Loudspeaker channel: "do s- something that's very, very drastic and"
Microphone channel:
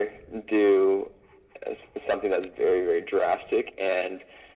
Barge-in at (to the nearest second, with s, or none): none